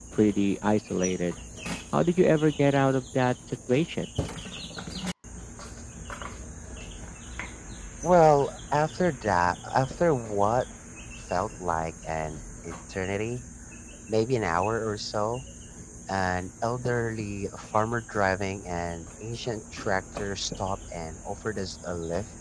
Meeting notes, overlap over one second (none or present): none